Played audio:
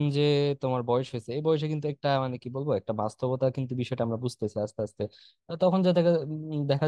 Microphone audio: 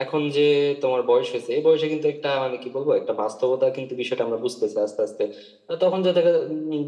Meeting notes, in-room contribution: none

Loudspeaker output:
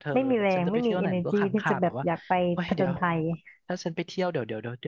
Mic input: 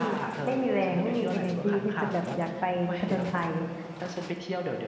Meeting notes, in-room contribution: none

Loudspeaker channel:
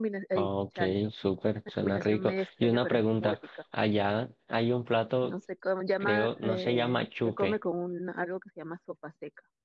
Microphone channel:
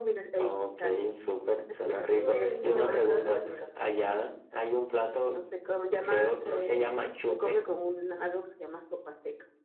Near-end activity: present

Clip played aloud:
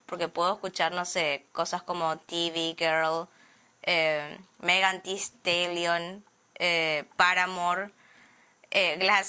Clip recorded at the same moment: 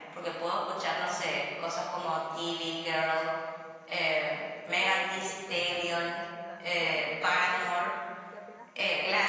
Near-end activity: present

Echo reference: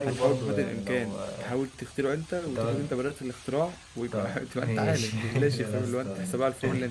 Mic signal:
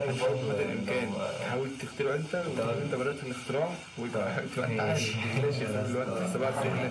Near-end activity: present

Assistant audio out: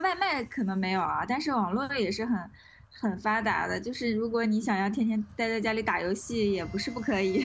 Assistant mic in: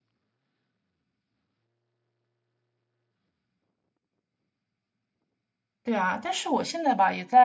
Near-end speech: present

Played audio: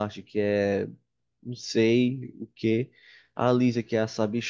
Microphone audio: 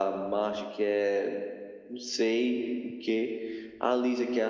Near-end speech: none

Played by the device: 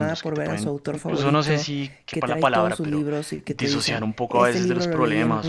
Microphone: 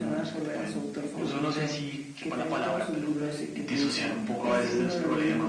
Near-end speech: none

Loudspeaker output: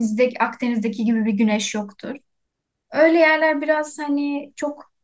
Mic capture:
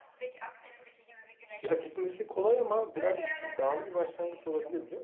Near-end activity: present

